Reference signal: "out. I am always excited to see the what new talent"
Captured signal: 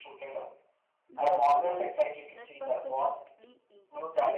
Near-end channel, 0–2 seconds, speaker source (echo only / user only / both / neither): both